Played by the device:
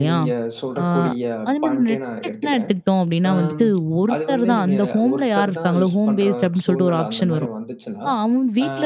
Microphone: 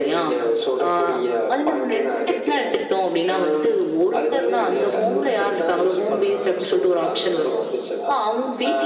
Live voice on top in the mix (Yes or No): No